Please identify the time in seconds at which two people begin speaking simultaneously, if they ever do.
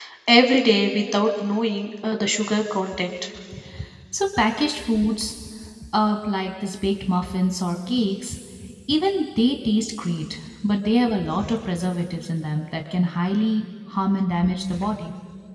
none

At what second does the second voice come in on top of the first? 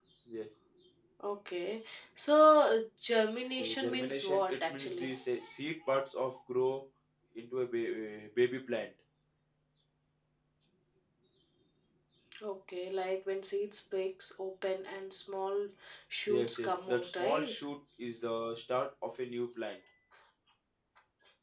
3.6 s

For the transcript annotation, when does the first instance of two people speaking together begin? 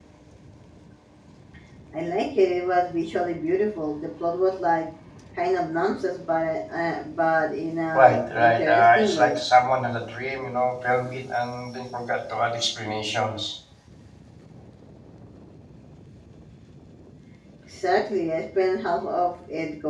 7.9 s

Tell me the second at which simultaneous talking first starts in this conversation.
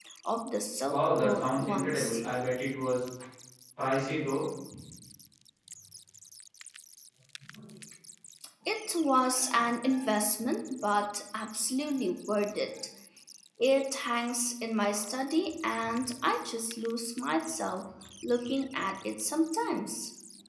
0.9 s

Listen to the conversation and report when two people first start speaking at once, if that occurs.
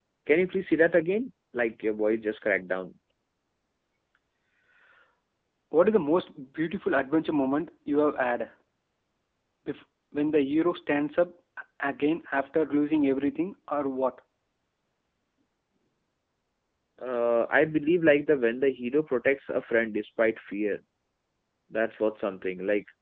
none

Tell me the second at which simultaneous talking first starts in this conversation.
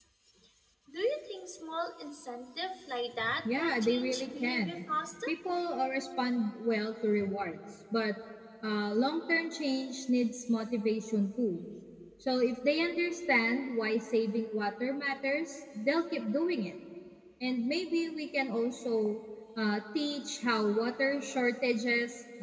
3.2 s

